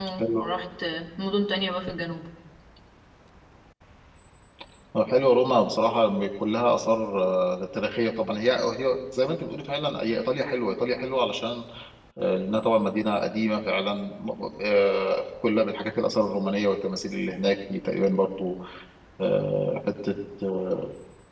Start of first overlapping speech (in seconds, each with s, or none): none